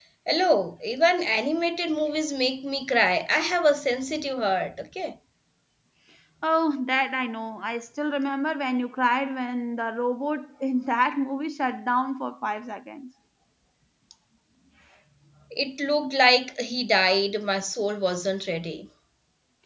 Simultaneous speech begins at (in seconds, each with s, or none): none